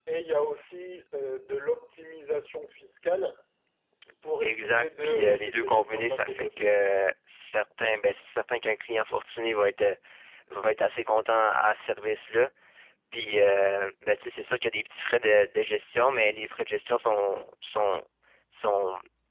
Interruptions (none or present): present